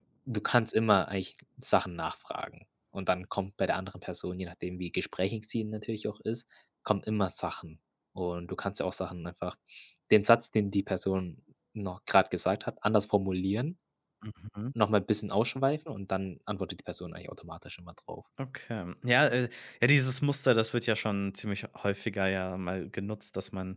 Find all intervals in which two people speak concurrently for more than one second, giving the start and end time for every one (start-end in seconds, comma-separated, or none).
none